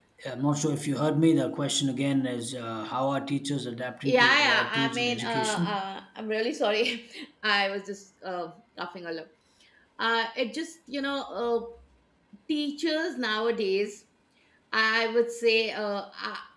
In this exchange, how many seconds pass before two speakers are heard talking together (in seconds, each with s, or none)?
4.0 s